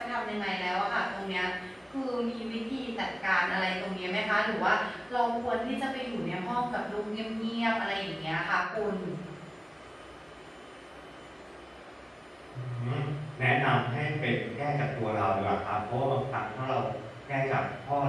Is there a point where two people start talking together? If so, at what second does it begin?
none

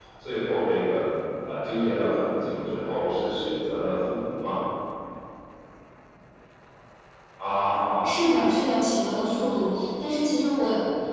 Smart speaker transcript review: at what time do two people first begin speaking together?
none

